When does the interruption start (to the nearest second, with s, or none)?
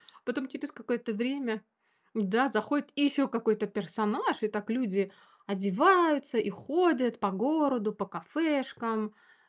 none